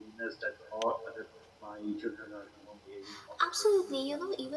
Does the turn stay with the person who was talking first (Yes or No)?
No